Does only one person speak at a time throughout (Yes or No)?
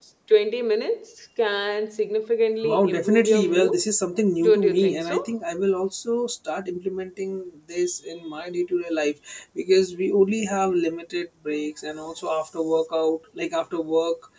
No